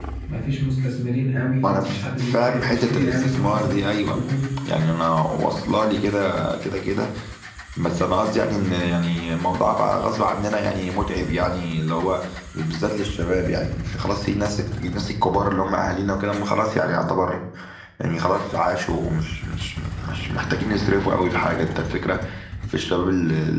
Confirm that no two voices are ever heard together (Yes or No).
No